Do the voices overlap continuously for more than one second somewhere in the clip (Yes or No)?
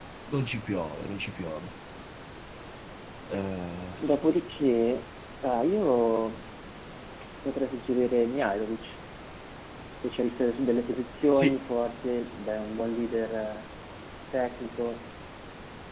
No